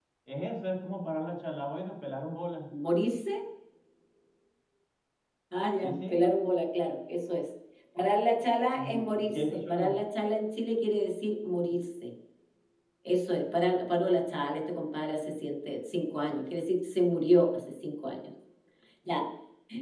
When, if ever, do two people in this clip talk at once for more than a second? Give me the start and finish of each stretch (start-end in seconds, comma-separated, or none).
8.7-10.0